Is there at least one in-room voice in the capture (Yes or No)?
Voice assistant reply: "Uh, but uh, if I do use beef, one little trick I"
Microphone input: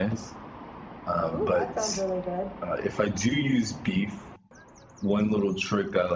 Yes